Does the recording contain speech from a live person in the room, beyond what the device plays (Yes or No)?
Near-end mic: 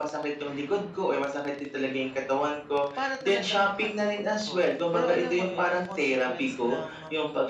Yes